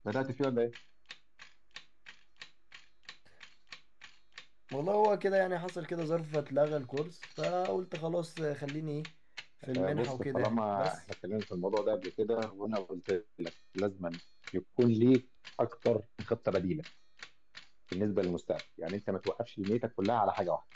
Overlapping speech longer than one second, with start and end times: 9.8-11.0

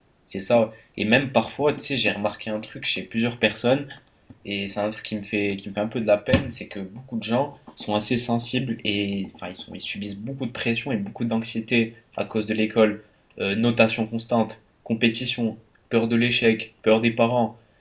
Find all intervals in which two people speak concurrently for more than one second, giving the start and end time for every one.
none

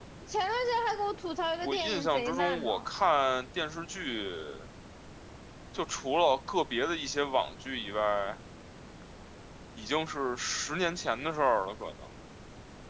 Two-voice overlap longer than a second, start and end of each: 1.6-2.9

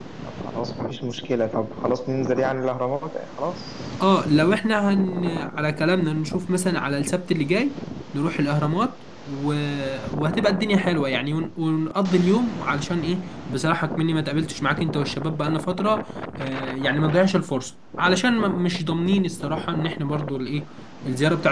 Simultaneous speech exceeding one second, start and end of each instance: none

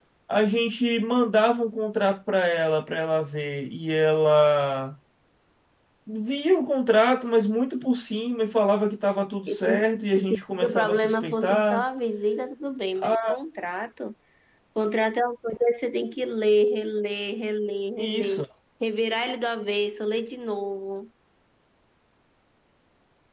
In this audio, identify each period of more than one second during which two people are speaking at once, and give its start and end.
10.2-11.8

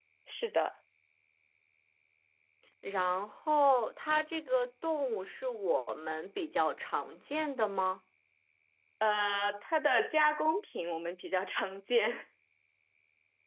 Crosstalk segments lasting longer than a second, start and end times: none

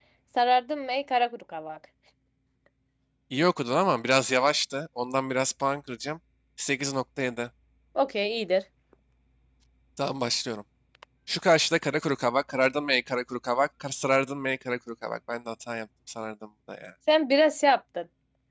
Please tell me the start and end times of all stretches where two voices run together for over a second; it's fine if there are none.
none

